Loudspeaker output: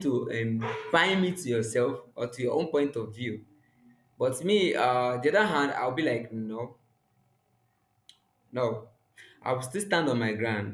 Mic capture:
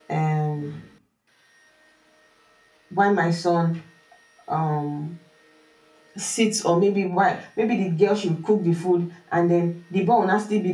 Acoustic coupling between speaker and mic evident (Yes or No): No